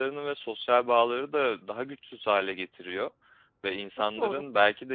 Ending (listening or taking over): listening